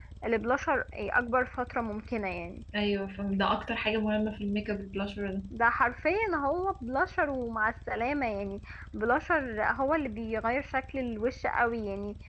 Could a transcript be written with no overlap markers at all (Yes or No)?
Yes